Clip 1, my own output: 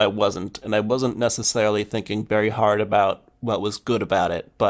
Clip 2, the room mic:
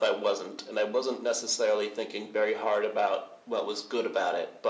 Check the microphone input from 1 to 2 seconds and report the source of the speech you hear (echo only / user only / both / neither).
echo only